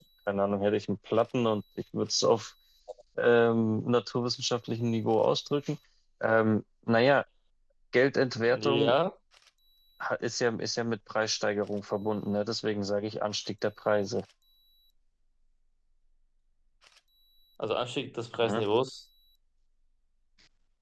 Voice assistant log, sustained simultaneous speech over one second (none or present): none